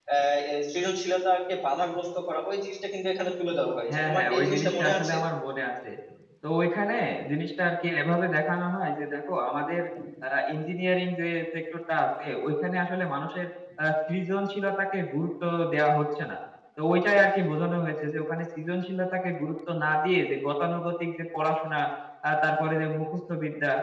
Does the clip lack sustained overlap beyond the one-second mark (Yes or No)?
No